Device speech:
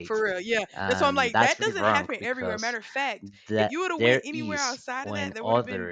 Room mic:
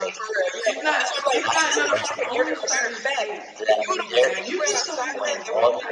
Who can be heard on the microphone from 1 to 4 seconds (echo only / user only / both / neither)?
both